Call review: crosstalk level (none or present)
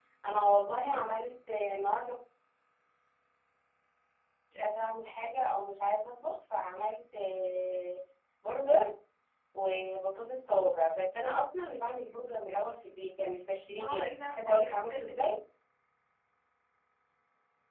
present